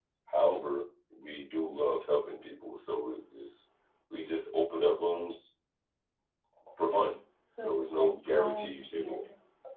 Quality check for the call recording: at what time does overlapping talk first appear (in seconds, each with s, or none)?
7.6 s